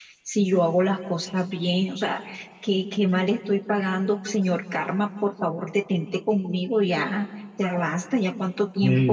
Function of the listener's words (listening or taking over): taking over